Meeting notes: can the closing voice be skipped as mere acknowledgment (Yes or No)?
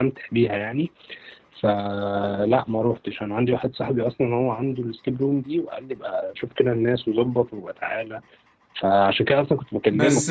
No